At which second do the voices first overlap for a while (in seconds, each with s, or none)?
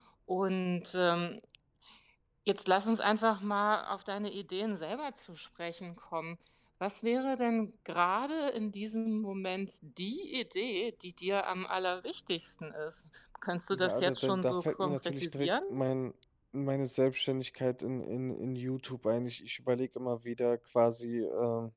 13.7 s